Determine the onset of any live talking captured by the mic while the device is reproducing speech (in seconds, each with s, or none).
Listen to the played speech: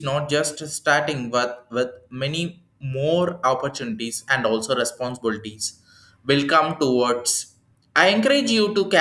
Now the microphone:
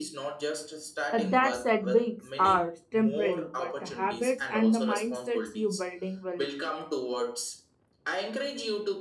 1.1 s